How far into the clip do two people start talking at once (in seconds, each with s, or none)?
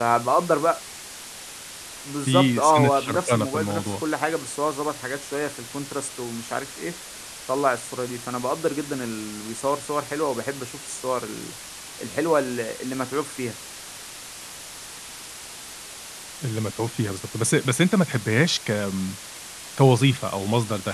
2.3 s